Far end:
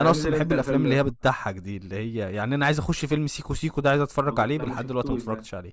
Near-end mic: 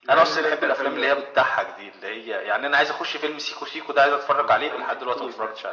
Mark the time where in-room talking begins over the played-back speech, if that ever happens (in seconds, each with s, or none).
none